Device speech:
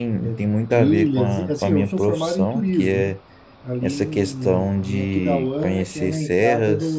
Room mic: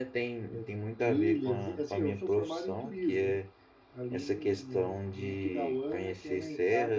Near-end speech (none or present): none